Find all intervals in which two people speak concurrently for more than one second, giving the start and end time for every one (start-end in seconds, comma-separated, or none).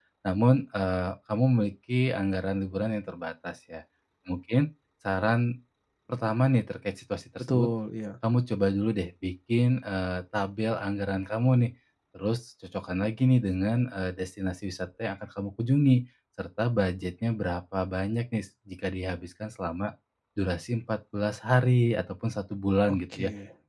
none